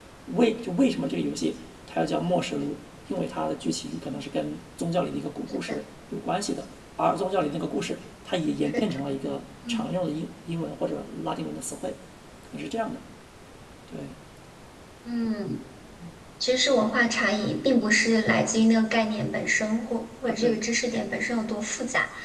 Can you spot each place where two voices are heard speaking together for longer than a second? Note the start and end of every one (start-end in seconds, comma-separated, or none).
none